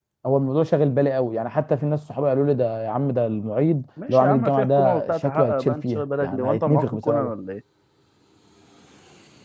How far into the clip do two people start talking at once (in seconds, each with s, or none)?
4.0 s